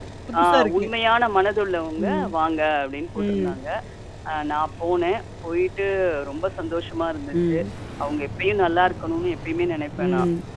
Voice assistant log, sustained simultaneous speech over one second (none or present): none